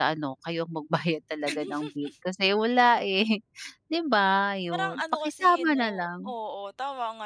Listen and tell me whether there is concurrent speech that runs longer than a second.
Yes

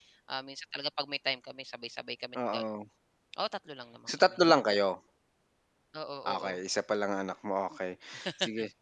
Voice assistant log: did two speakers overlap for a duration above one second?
No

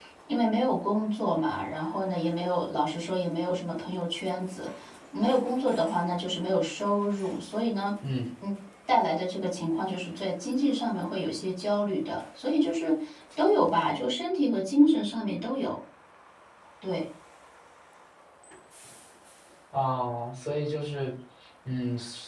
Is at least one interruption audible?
No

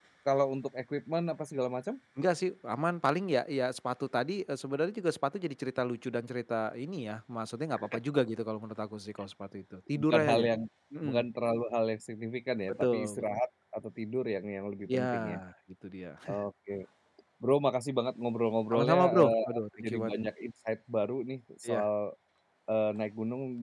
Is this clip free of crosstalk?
No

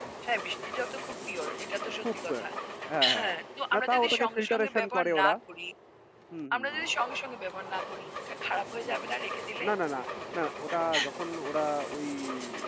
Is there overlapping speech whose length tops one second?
Yes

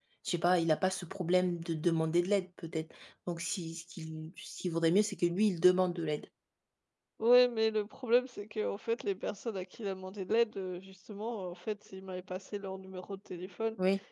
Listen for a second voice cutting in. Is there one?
No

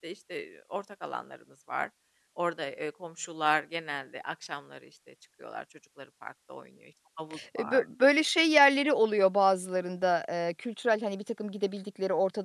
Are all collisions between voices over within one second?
Yes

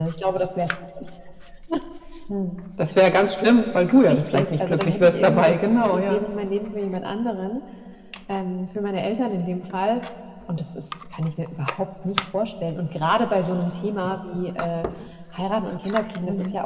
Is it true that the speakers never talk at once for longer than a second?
No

